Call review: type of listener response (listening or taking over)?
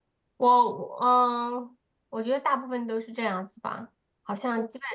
listening